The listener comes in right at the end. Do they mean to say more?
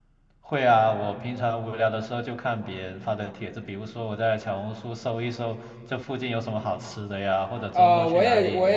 Yes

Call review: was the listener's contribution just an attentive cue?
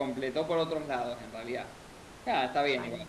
Yes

